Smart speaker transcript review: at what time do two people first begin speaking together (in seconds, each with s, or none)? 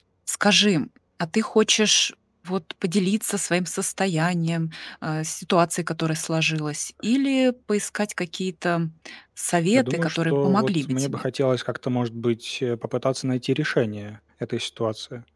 9.7 s